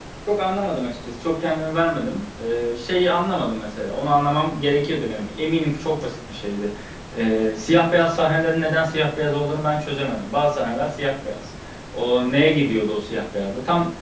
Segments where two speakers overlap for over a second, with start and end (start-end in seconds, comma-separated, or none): none